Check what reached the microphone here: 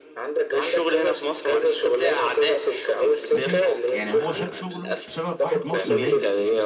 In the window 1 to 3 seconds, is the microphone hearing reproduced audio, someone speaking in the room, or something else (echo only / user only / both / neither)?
echo only